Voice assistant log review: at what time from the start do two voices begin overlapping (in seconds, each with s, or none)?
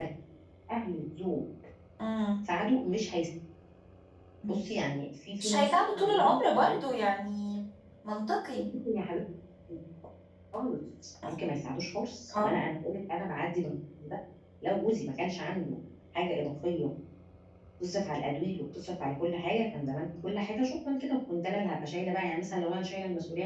5.4 s